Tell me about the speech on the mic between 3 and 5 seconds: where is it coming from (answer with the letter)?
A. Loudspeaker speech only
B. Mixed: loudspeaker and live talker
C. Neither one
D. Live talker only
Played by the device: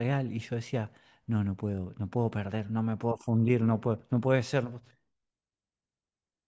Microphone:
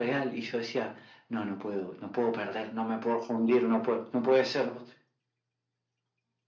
A